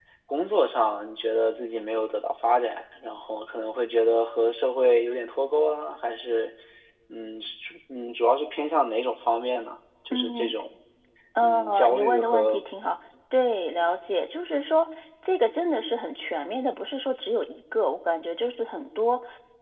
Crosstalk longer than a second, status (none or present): present